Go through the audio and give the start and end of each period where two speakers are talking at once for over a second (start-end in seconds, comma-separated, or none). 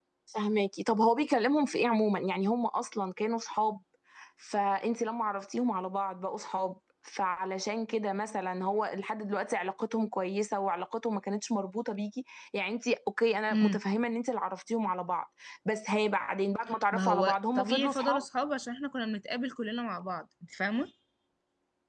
16.9-18.2